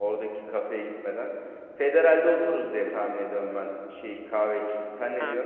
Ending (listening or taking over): taking over